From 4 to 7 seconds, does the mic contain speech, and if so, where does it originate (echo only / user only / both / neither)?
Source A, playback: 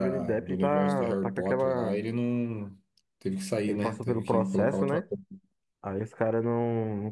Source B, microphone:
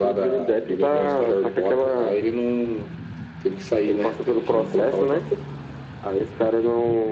echo only